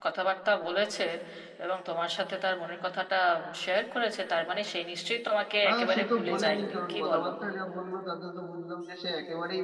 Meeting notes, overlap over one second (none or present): present